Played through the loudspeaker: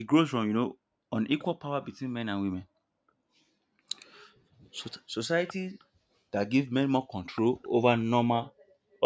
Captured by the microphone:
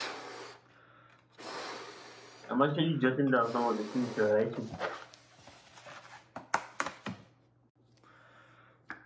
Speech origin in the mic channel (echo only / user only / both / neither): user only